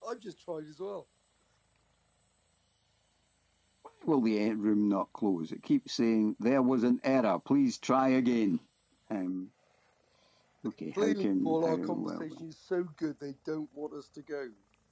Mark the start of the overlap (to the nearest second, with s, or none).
11 s